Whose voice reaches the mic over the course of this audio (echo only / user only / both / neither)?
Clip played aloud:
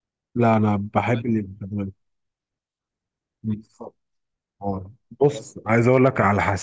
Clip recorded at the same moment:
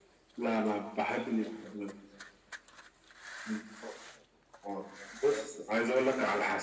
echo only